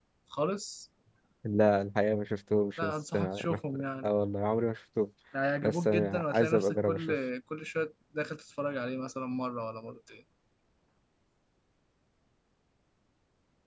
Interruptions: present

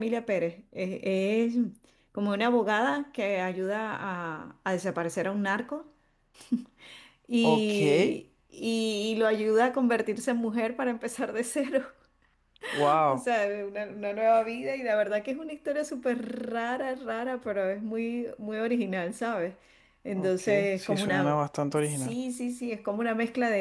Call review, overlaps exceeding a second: present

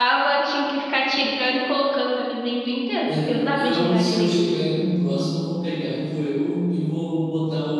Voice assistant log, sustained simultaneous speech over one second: present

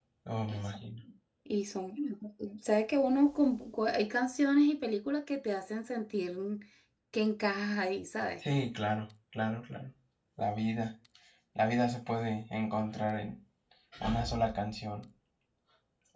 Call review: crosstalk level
none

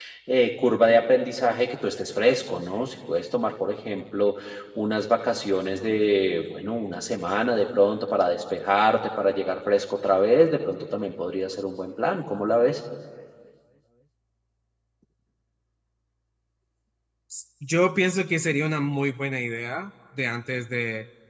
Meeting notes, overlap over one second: none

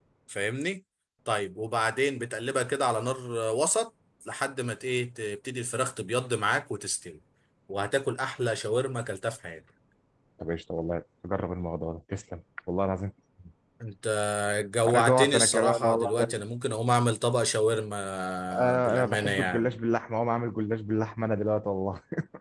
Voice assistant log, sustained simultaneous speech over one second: present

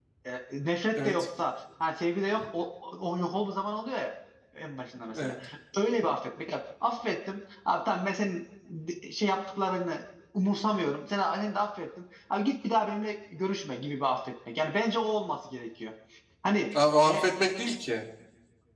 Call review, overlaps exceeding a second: none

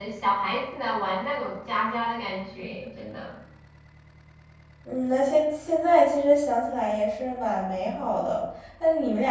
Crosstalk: none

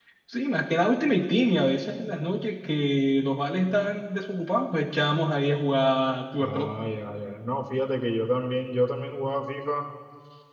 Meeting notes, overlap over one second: none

